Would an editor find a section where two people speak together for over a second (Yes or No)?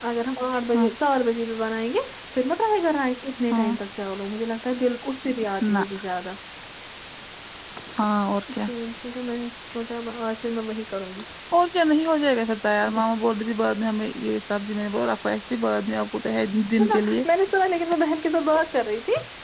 No